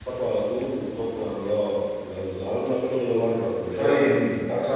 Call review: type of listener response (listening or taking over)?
taking over